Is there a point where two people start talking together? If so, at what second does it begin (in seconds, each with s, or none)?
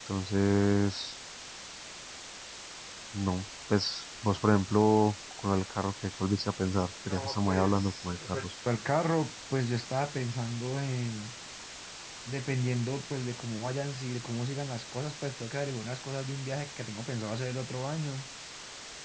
7.0 s